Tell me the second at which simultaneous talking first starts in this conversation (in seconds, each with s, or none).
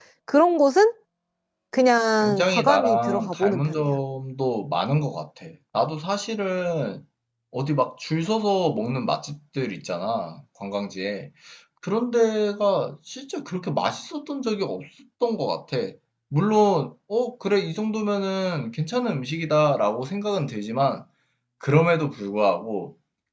2.2 s